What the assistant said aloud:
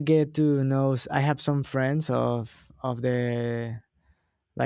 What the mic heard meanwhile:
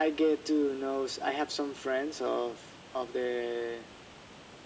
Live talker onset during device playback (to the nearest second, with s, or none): none